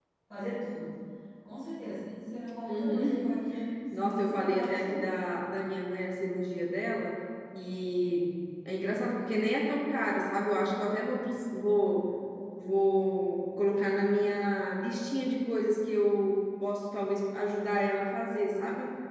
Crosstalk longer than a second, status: present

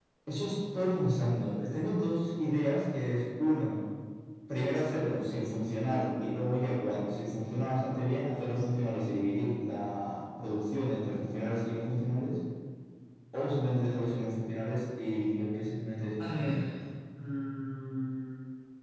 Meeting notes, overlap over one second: none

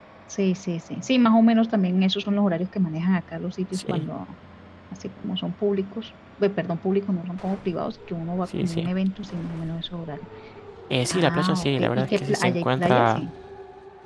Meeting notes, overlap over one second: present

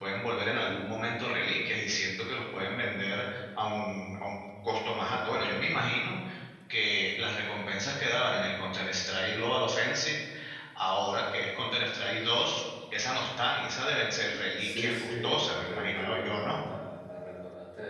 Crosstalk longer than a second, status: present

